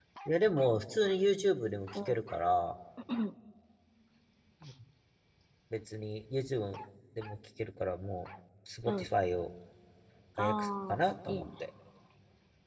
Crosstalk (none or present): present